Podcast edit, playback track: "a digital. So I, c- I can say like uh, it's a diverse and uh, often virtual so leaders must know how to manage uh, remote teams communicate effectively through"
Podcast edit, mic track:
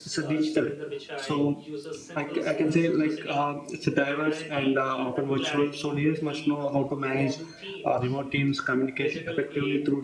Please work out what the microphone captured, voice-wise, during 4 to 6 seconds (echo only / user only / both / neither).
both